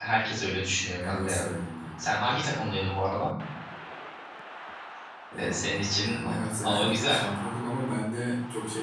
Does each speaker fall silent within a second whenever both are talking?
No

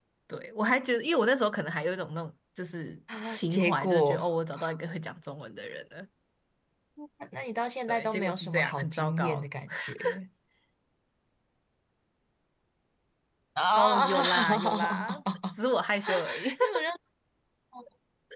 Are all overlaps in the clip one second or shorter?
No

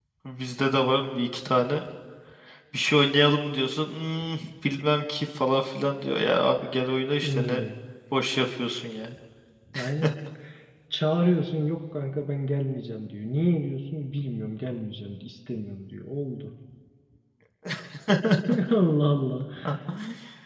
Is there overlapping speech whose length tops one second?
No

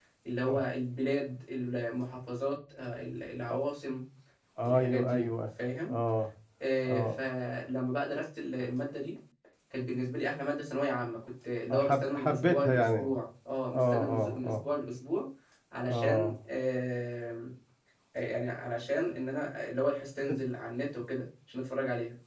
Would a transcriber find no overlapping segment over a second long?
No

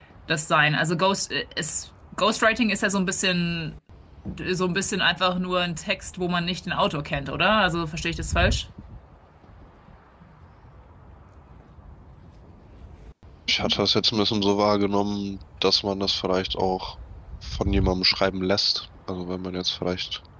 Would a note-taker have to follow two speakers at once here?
No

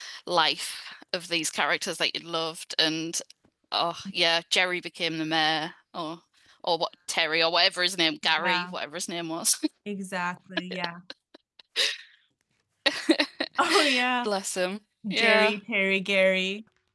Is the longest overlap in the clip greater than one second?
No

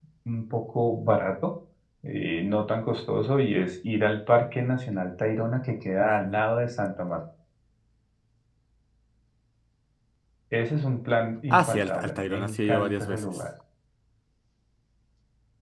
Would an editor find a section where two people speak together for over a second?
Yes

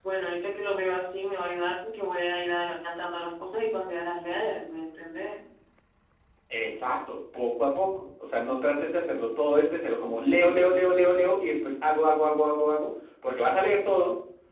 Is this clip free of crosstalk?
Yes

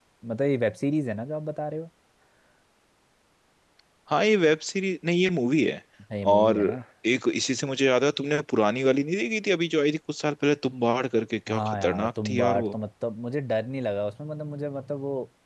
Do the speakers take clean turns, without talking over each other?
No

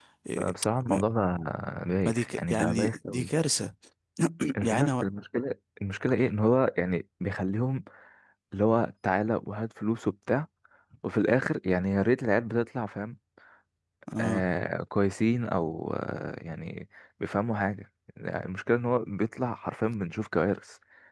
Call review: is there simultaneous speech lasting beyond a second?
Yes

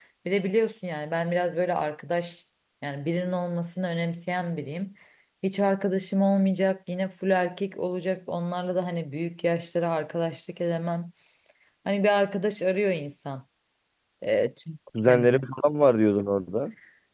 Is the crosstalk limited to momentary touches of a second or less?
Yes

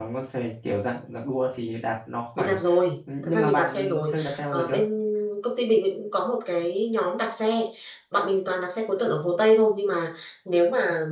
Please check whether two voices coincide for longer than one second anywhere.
Yes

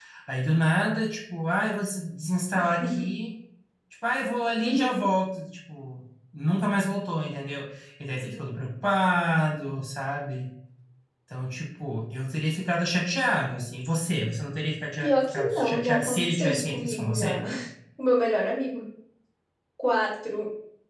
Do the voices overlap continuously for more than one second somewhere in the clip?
Yes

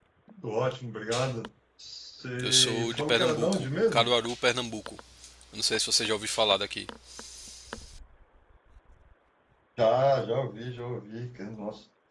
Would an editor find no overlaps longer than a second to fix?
No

